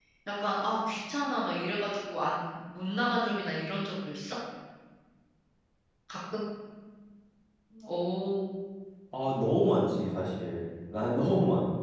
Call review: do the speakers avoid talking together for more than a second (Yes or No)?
Yes